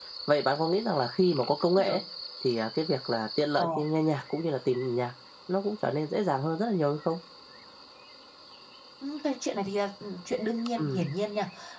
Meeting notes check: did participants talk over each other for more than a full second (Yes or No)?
No